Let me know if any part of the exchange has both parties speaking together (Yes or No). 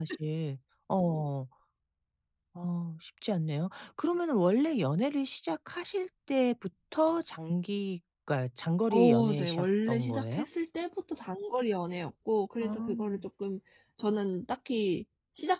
Yes